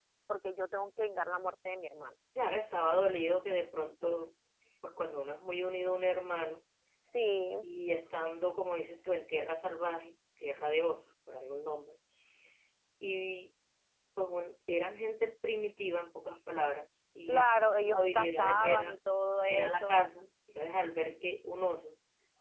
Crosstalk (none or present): present